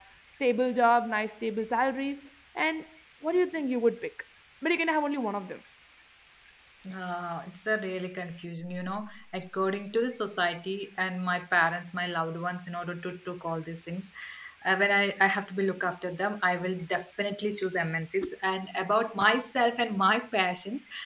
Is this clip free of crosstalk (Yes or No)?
Yes